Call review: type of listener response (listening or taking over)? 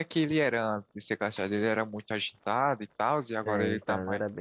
taking over